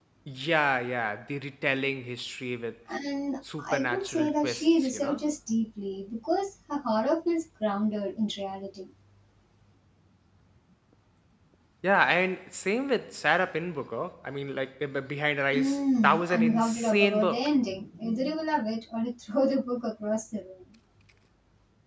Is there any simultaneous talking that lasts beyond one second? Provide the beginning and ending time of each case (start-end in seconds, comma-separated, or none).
3.6-5.2, 15.5-17.5